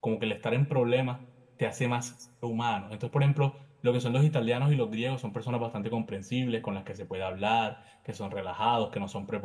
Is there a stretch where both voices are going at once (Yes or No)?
No